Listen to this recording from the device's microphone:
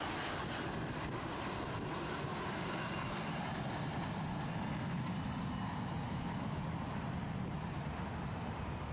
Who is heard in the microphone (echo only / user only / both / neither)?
neither